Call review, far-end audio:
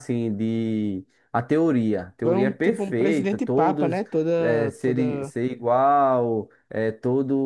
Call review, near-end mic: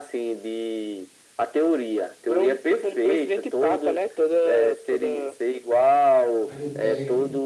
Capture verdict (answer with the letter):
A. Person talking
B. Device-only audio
A